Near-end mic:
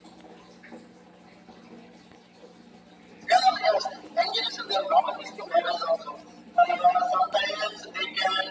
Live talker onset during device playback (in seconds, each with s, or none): none